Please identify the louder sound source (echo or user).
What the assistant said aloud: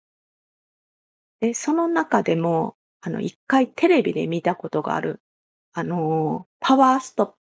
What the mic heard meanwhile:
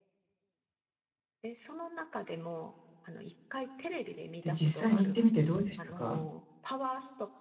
user